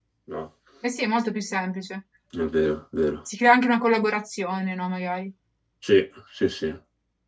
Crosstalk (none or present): none